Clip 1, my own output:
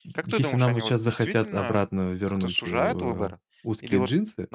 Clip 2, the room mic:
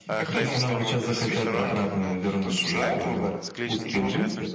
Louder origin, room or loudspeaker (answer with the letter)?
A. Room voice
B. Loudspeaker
B